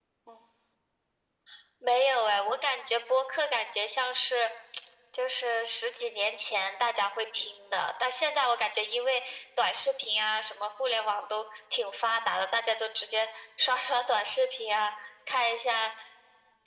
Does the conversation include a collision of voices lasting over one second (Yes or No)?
No